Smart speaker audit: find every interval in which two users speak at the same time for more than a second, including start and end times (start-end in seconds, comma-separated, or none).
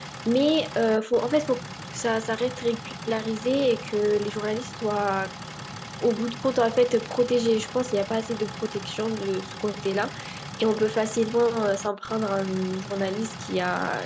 none